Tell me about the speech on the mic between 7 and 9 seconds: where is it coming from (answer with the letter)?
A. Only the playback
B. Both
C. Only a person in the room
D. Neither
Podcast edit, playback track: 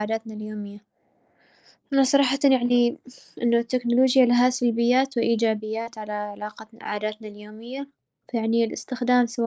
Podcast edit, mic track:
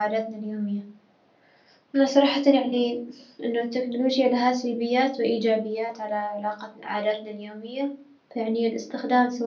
A